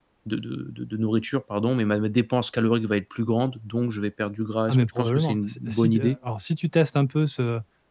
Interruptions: present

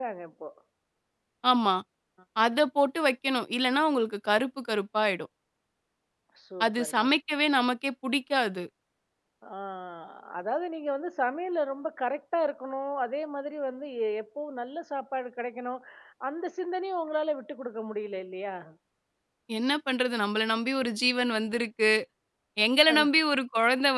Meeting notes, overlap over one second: none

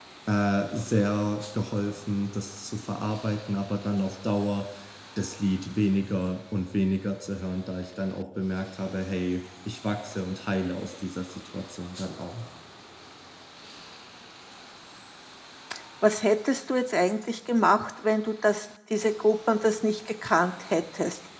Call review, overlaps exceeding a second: none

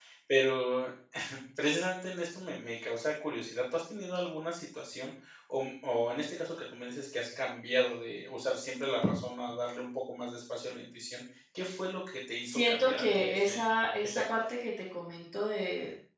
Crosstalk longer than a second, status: present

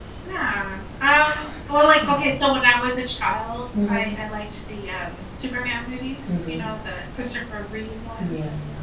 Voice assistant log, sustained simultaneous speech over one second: none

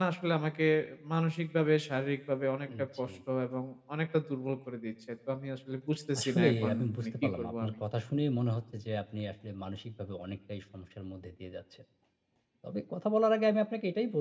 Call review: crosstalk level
present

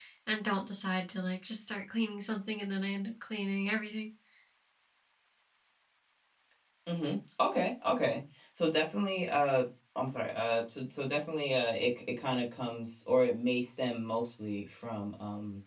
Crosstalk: none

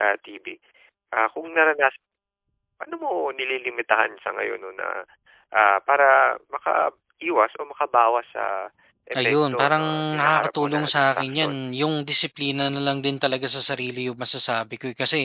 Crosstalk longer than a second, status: present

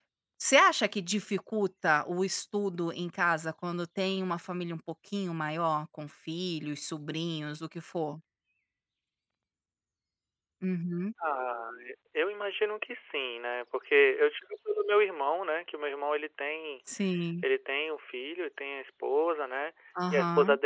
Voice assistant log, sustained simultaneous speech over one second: none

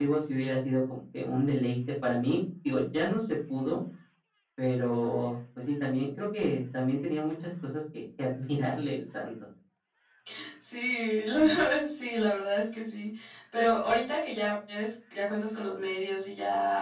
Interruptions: none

